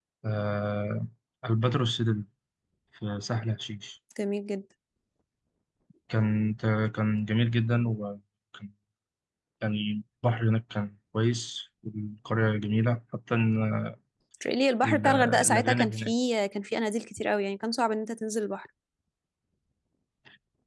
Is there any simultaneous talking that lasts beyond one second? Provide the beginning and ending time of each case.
14.8-16.1

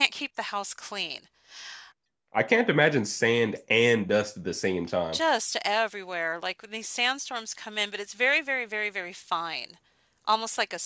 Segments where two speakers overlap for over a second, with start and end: none

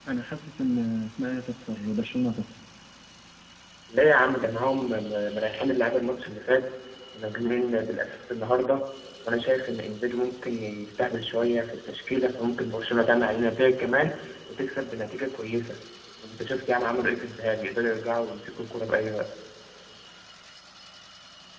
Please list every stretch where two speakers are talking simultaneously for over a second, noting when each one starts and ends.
none

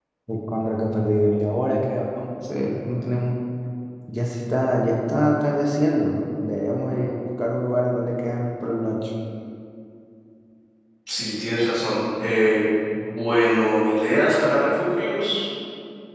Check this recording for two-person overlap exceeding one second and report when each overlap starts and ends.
none

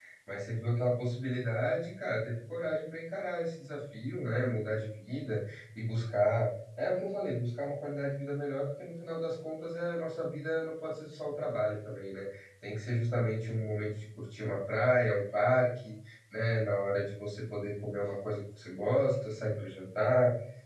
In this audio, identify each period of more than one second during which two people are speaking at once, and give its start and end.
none

